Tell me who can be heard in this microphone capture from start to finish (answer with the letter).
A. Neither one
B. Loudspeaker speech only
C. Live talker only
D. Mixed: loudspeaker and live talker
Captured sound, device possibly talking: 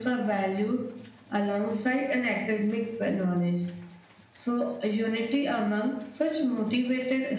B